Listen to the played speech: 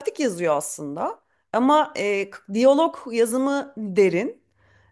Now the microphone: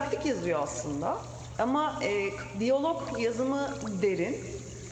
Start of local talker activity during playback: none

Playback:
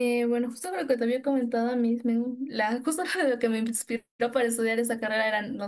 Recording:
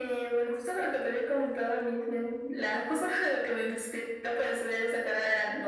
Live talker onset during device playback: none

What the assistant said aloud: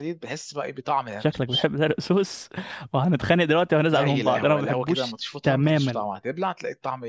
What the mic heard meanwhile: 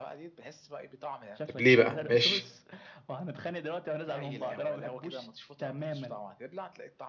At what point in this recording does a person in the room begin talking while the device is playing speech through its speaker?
1.4 s

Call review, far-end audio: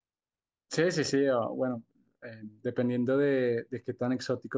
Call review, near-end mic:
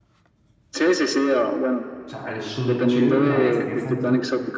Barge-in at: 2.0 s

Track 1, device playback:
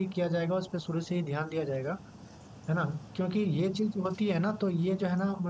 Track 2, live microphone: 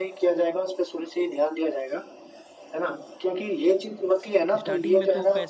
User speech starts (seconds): 4.6 s

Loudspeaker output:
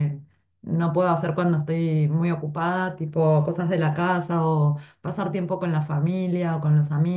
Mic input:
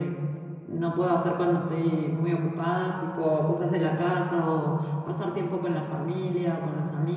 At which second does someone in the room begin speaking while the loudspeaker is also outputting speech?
none

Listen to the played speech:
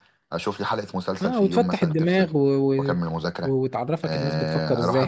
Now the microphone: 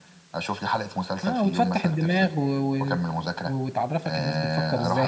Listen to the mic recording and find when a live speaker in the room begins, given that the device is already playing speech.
none

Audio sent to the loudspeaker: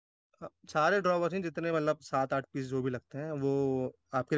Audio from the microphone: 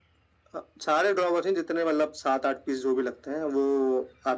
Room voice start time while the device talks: none

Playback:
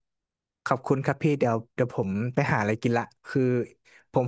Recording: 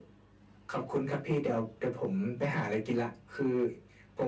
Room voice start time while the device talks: none

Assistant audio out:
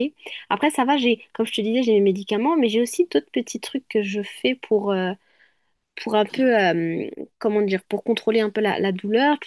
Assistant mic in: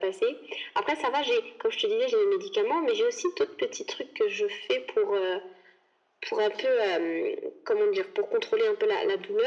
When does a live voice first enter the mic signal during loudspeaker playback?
none

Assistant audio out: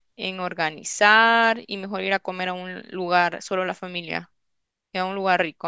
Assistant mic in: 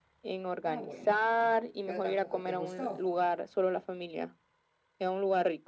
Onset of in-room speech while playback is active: 0.6 s

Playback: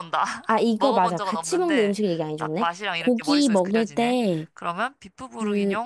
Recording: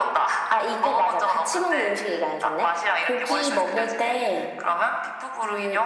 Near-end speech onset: none

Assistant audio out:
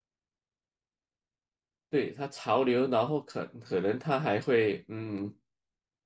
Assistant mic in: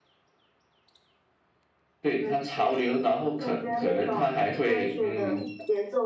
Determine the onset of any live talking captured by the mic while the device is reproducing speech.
2.1 s

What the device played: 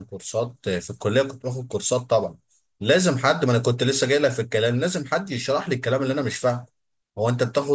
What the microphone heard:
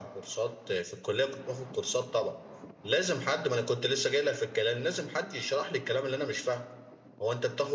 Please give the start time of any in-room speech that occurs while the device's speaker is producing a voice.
none

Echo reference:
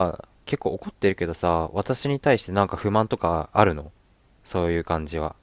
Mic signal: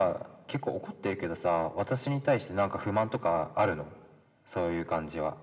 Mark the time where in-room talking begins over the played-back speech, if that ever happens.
none

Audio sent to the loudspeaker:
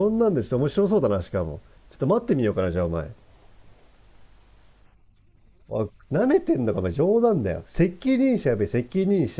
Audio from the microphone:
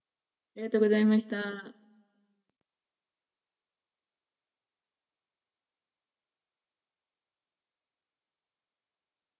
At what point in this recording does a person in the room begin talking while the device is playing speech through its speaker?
0.6 s

